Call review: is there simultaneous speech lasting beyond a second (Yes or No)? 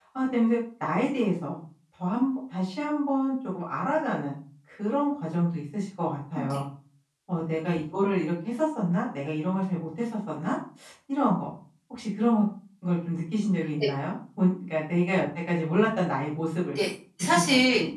No